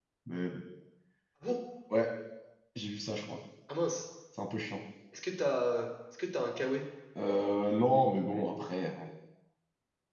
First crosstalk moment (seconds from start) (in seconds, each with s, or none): none